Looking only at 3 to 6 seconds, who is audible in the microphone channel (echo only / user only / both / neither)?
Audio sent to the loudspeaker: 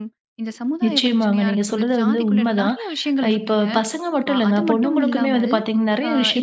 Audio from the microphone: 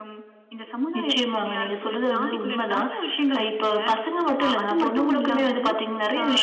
echo only